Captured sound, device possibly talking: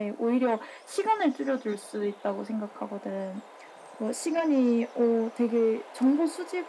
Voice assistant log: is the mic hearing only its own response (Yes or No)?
Yes